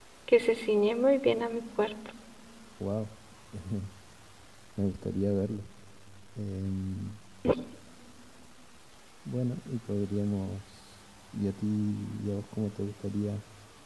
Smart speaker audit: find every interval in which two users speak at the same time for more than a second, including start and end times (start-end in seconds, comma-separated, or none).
none